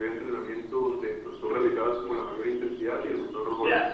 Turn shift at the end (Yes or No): Yes